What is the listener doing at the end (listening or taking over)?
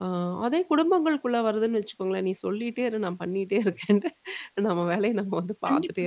taking over